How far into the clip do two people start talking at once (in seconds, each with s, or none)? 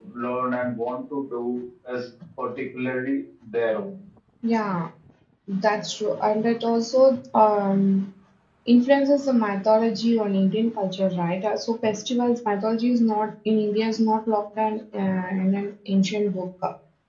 none